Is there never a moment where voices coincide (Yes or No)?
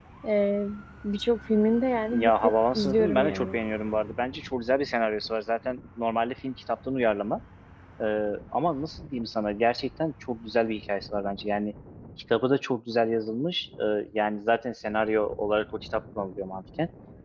No